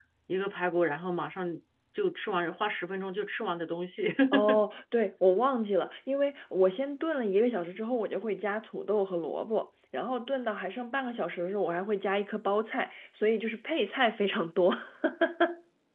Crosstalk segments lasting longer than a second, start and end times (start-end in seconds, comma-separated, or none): none